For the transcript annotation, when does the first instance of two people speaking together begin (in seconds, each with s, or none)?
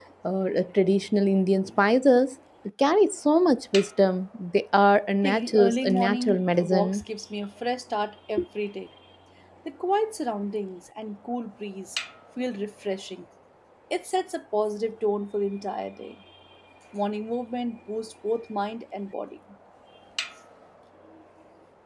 5.2 s